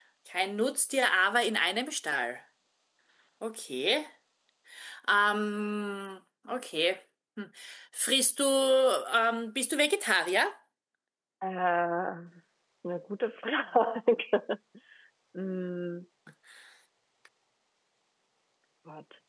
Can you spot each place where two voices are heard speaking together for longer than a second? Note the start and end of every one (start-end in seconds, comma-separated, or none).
none